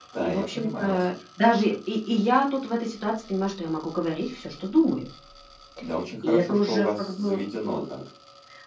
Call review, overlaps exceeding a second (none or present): present